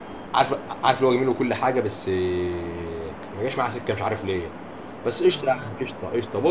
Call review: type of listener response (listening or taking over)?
listening